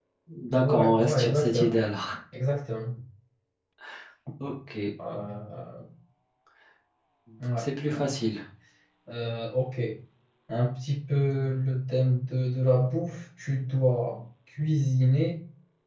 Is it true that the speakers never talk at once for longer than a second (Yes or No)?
No